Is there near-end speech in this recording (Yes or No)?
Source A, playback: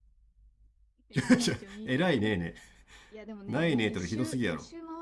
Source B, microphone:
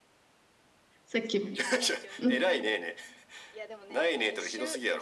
Yes